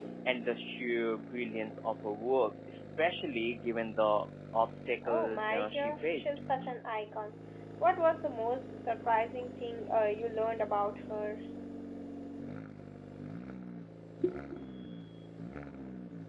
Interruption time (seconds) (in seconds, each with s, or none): 5.0 s